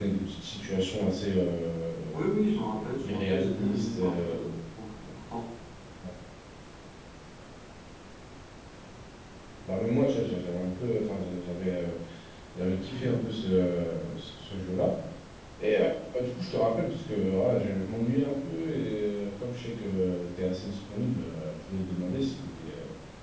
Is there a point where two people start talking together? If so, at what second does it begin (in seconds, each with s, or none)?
2.1 s